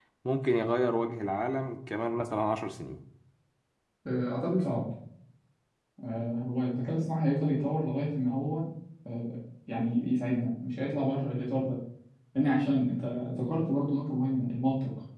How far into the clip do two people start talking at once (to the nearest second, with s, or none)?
none